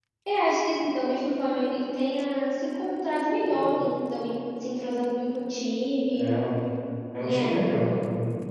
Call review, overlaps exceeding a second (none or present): none